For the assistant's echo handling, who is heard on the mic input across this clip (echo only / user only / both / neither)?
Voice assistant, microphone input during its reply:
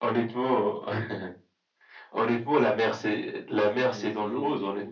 both